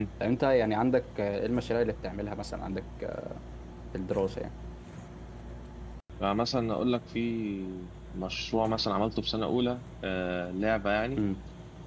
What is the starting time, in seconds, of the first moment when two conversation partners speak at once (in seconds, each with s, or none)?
none